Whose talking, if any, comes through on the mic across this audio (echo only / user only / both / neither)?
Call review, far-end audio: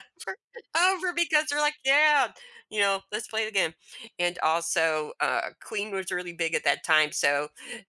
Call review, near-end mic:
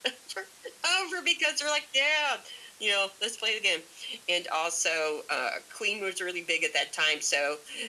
echo only